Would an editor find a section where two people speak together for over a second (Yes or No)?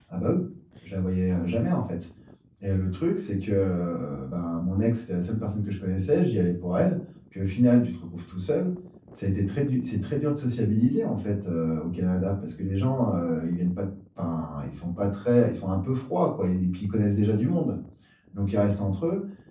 No